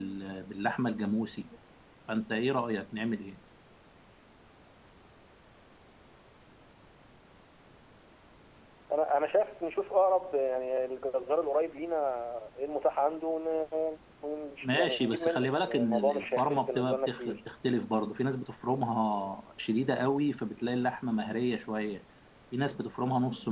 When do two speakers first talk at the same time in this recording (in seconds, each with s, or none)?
14.6 s